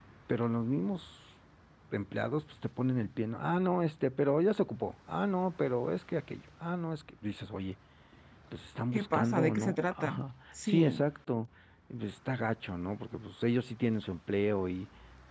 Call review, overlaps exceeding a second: present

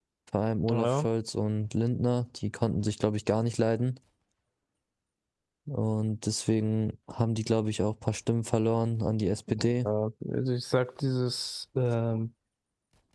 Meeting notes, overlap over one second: none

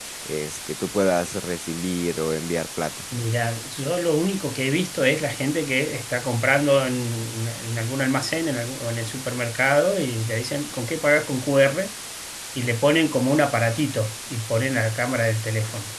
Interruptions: none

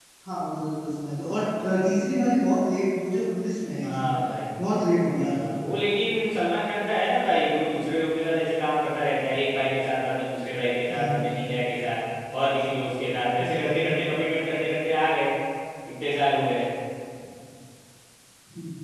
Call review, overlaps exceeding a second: none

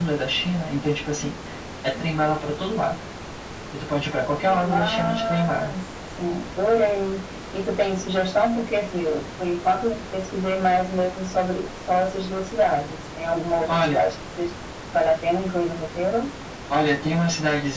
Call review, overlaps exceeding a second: present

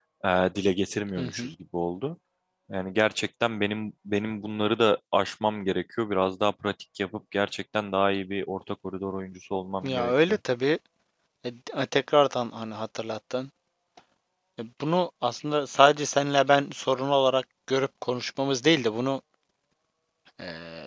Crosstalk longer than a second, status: none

